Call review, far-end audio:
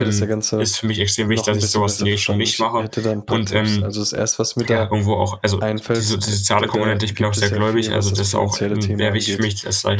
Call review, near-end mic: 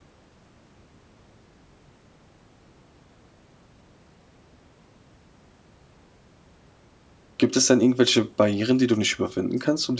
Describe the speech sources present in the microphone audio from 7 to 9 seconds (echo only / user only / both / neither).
user only